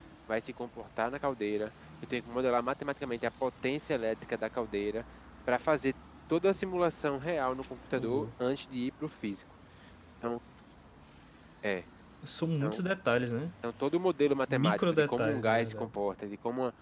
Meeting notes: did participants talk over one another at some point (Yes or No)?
Yes